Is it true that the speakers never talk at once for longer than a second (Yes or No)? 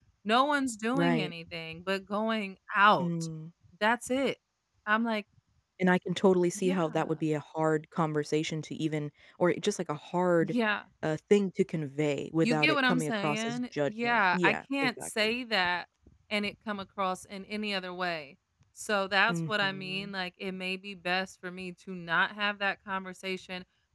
No